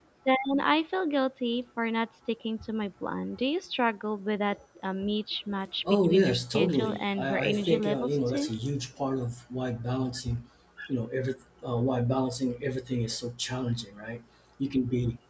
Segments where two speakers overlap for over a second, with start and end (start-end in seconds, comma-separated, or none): 5.8-8.5